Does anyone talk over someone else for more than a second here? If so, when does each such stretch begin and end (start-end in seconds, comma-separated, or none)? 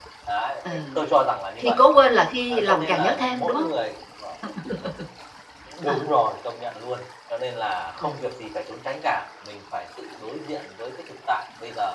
2.5-3.7